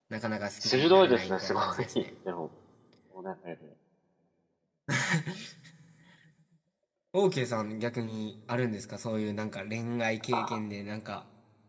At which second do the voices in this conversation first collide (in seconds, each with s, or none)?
0.6 s